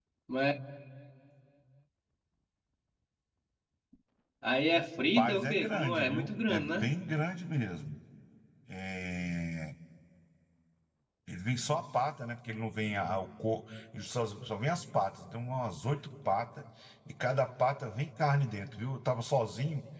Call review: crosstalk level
present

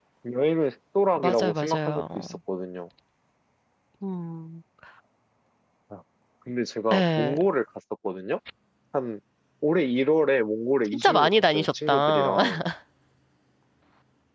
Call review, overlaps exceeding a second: present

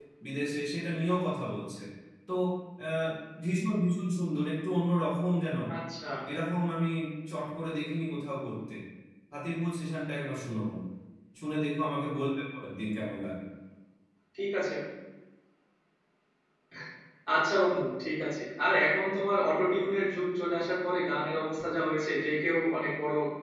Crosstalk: none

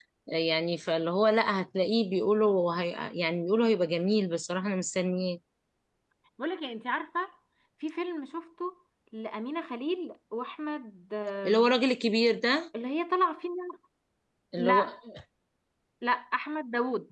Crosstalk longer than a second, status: none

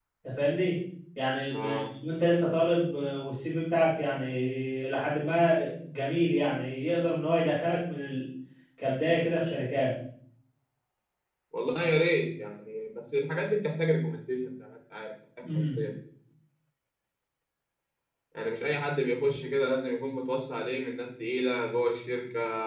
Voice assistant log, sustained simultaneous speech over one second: none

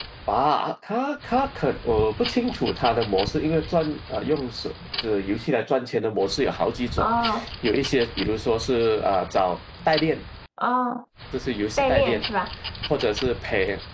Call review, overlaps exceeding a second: none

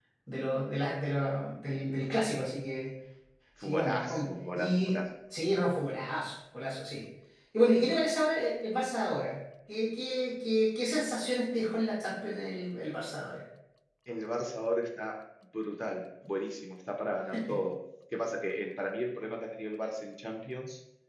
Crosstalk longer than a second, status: present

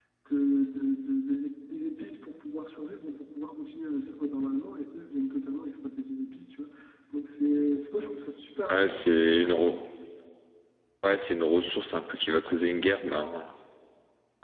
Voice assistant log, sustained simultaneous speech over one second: none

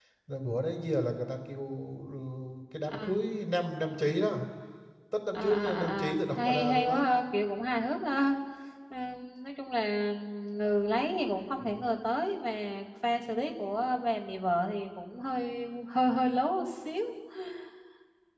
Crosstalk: present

